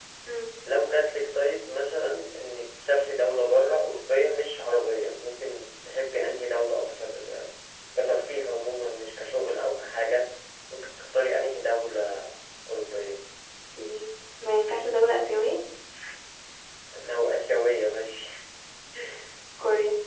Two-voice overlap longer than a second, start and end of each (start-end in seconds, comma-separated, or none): none